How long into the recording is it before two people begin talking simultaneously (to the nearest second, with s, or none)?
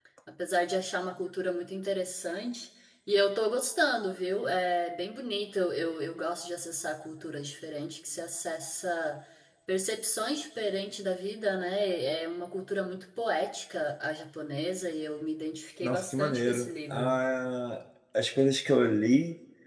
16 s